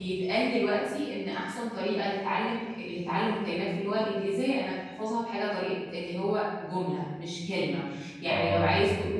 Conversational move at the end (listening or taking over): listening